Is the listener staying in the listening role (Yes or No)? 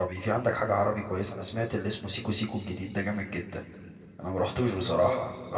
Yes